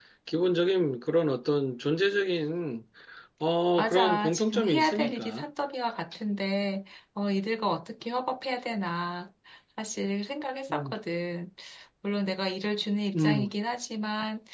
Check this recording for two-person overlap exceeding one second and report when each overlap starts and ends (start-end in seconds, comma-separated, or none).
3.8-5.4